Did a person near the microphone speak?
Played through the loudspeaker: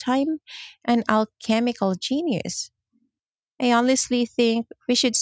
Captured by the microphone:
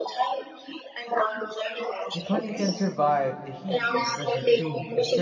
Yes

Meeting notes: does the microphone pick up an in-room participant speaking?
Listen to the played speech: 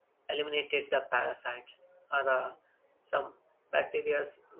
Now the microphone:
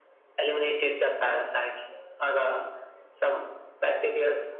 No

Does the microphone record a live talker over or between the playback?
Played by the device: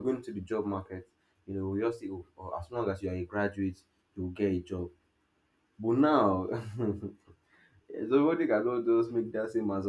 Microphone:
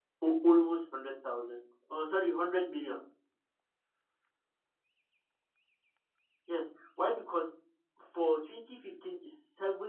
Yes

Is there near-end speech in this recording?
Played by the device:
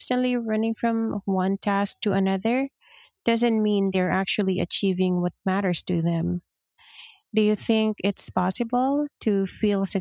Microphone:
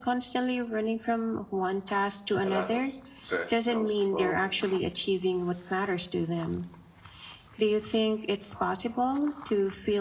Yes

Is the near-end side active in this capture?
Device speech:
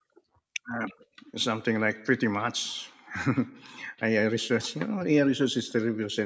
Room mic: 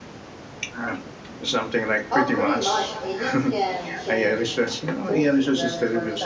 Yes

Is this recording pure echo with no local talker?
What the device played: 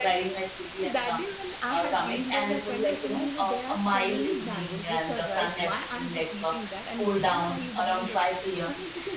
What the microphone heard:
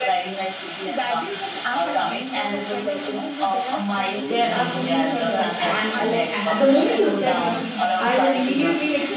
No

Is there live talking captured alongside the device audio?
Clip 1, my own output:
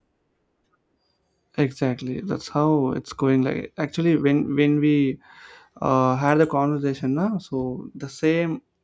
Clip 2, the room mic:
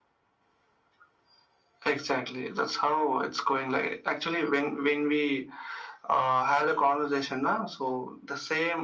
No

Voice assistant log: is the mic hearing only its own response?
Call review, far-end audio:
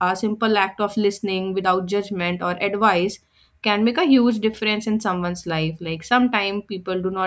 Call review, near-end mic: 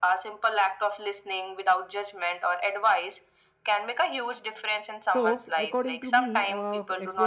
No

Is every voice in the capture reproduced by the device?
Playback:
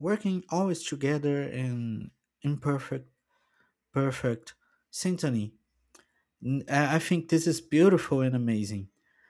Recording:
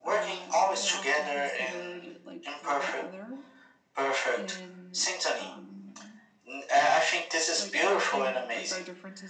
No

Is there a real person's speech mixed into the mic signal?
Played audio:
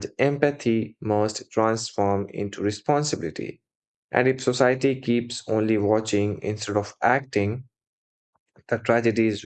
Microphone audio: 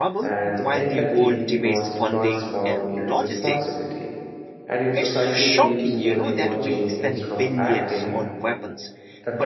Yes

